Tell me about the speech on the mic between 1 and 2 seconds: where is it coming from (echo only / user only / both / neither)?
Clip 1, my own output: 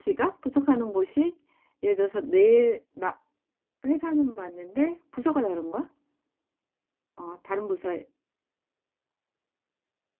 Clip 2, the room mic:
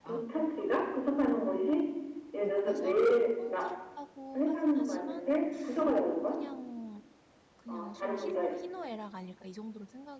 echo only